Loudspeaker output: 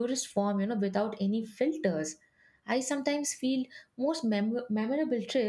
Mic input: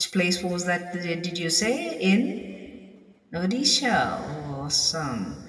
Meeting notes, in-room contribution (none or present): present